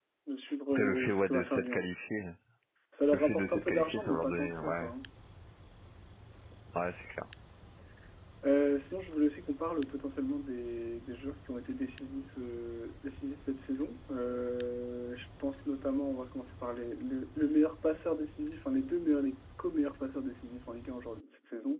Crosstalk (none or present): present